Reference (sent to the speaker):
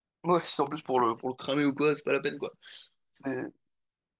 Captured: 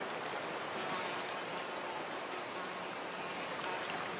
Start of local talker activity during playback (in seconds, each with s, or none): none